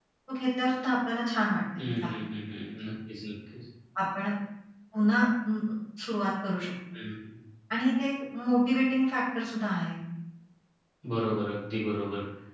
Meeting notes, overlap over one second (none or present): none